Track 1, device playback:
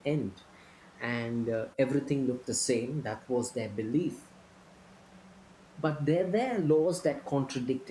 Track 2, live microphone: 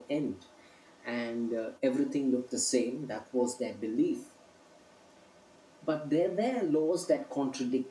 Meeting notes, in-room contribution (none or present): none